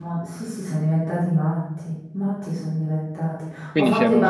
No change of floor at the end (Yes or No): Yes